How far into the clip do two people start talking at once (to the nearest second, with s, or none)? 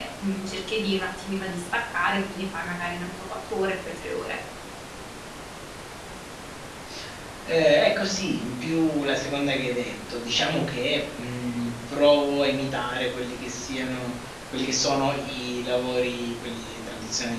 none